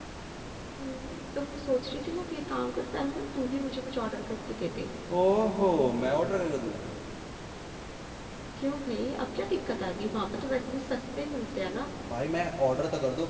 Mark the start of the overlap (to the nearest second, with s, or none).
none